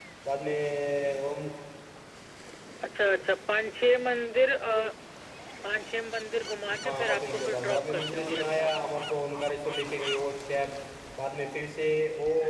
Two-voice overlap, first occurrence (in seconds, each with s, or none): 6.8 s